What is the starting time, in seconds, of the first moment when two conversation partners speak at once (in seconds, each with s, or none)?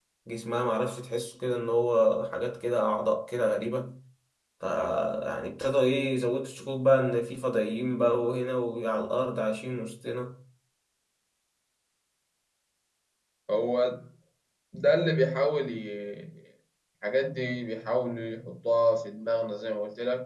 none